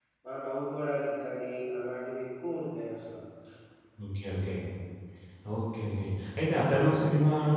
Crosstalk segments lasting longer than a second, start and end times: none

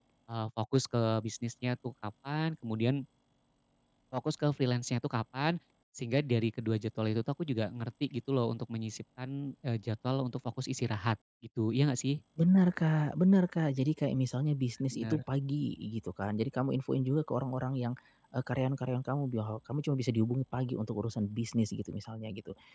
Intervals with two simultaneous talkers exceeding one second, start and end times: none

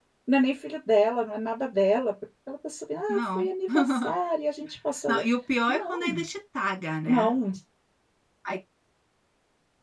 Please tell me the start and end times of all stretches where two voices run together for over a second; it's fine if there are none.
none

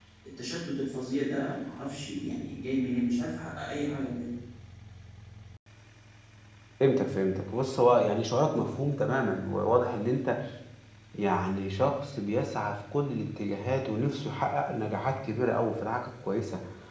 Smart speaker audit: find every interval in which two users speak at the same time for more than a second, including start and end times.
none

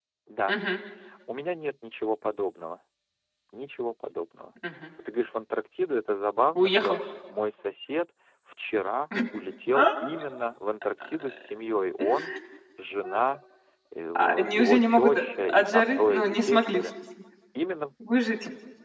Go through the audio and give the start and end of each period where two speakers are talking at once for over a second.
14.2-16.8

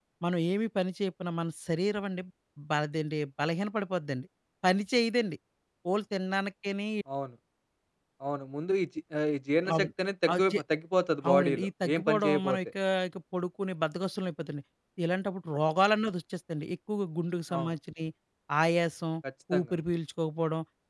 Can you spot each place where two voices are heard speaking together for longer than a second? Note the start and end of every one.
11.3-12.6

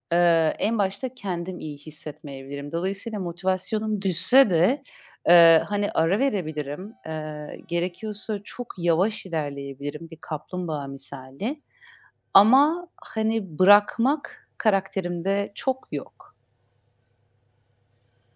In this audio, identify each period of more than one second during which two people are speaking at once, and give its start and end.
none

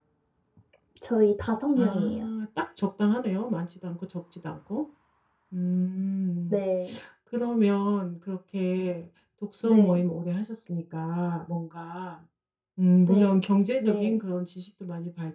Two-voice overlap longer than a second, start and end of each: none

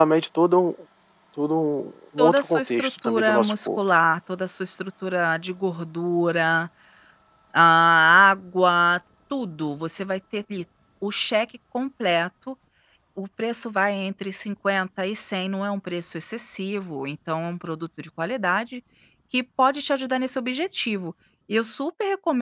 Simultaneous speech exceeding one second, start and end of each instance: 2.2-3.8

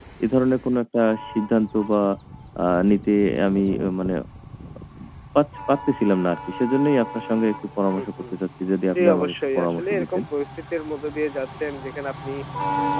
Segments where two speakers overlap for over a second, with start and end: 9.0-10.2

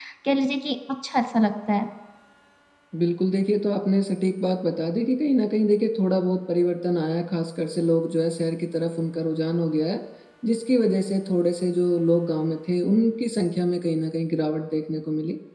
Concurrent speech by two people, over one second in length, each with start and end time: none

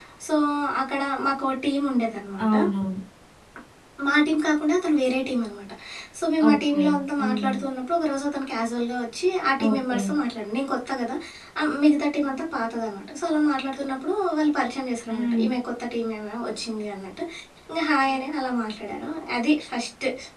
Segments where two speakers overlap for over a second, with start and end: none

